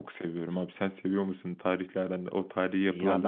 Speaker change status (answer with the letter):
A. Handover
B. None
A